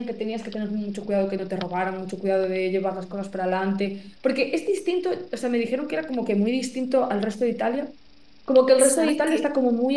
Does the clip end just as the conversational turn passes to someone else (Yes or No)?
No